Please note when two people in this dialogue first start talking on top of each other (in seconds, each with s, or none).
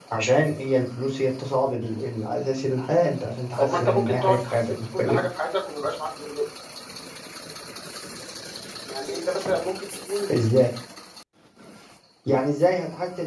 3.6 s